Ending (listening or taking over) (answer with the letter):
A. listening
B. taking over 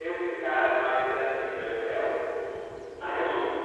B